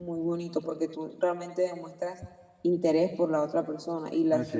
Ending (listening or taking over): listening